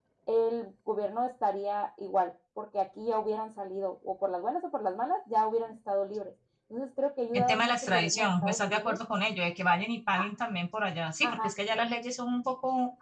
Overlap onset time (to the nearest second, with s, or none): 7 s